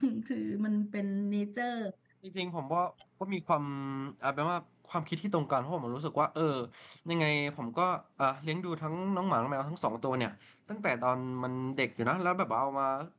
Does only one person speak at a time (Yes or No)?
Yes